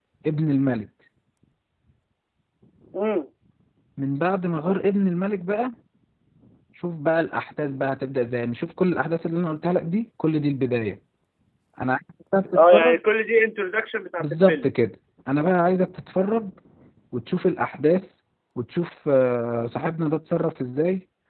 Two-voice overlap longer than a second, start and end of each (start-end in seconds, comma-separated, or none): none